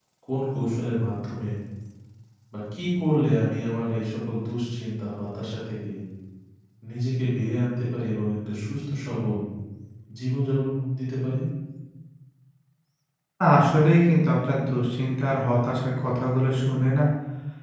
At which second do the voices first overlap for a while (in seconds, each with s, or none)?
none